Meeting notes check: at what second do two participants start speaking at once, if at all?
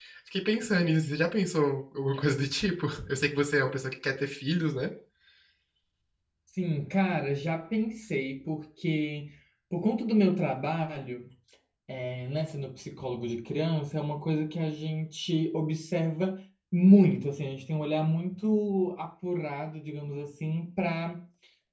none

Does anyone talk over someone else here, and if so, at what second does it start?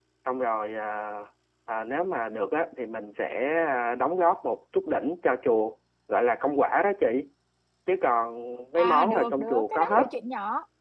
8.8 s

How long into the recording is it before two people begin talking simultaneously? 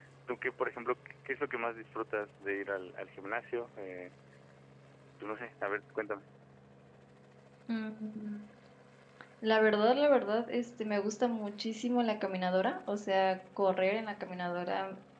none

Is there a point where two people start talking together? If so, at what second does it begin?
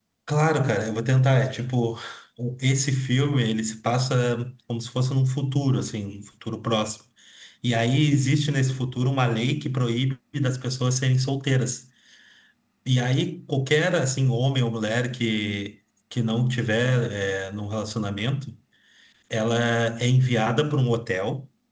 none

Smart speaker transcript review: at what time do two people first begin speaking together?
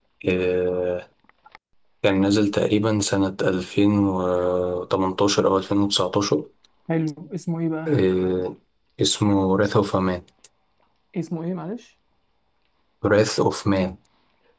none

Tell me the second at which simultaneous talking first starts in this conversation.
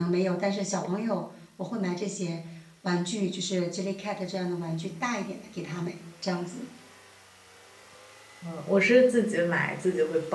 none

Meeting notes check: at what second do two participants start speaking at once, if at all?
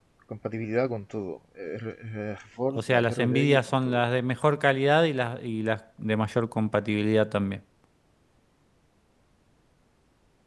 2.7 s

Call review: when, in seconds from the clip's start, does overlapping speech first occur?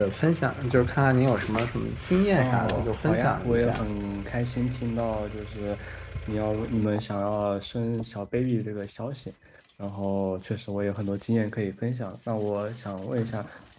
2.4 s

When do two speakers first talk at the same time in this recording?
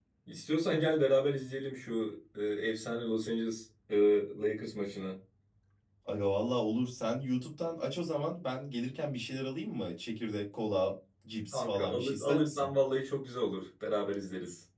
11.5 s

